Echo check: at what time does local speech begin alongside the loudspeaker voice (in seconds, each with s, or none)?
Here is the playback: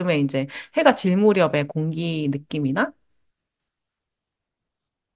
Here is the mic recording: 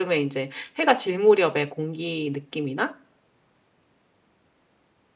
none